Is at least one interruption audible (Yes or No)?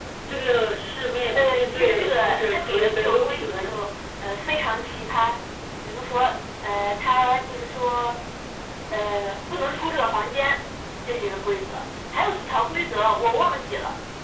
Yes